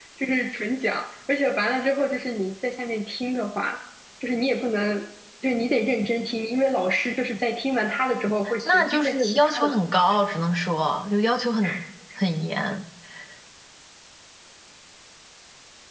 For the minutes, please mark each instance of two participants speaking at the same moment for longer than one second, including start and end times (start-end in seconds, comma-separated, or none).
8.7-10.0